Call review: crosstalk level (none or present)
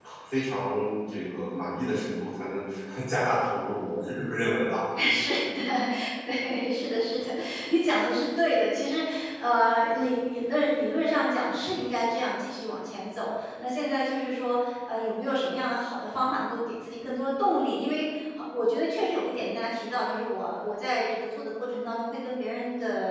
none